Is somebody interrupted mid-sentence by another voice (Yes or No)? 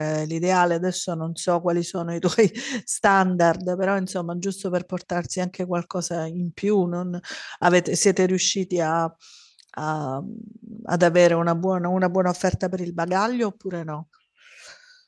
No